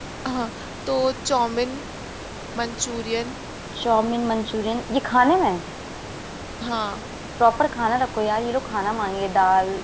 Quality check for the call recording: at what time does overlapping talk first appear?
none

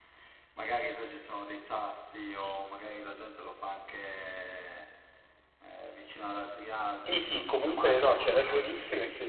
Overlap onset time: 7 s

